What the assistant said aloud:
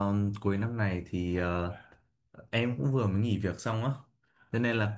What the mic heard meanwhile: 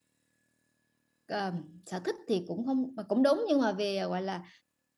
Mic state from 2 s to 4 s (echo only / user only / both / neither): user only